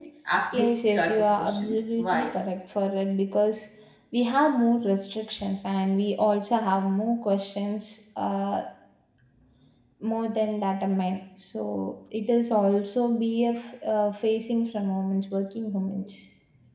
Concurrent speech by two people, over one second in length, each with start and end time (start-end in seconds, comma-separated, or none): 0.5-2.4